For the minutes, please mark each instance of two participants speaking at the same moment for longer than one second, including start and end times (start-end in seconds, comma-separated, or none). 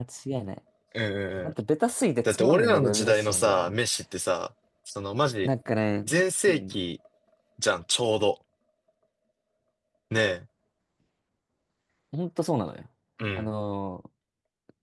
2.2-3.8